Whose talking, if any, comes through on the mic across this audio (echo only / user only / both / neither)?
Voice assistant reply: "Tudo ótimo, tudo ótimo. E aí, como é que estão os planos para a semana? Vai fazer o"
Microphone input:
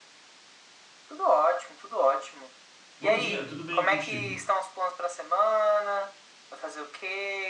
both